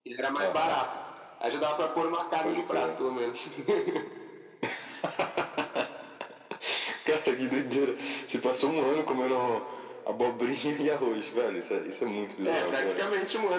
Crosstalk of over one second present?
No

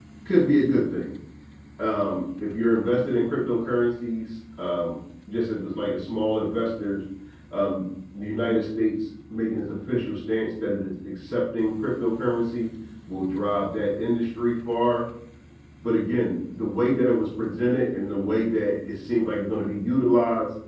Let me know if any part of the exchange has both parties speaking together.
No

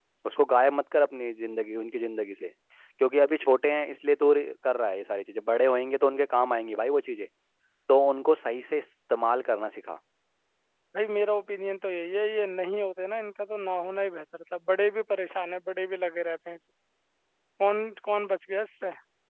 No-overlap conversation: Yes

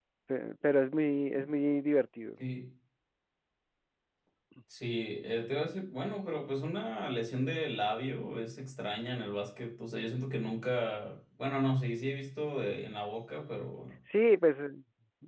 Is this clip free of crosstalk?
Yes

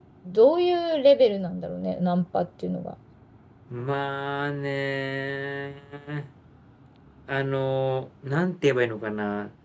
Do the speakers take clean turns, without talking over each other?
Yes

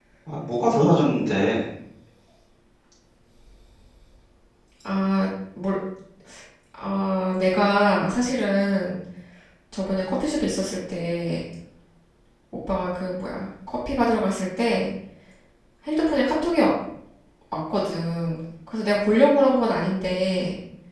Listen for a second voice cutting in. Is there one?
No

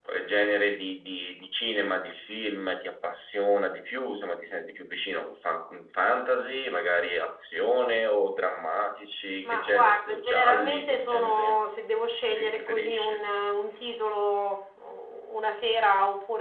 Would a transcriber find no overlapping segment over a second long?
No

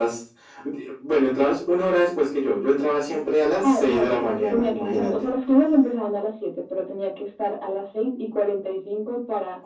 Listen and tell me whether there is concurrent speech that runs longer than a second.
Yes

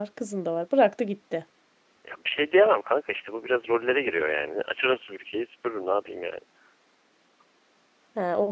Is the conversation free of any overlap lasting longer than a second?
Yes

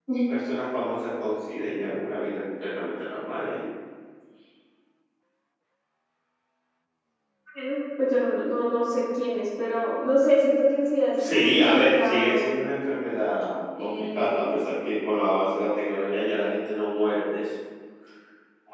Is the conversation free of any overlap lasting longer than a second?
No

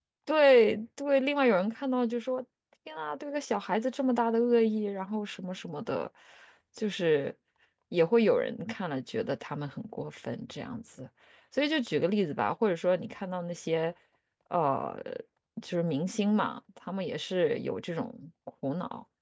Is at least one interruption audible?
No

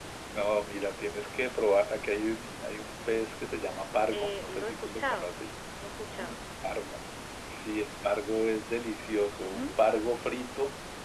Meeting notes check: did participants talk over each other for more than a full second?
Yes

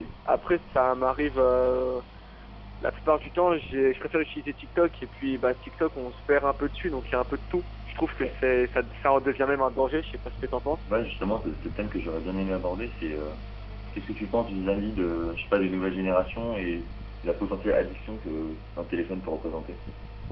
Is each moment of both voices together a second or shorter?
Yes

